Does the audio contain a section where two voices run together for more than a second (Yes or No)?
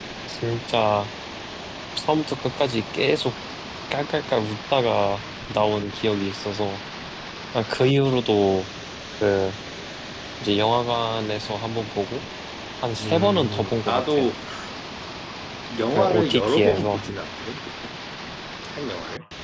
Yes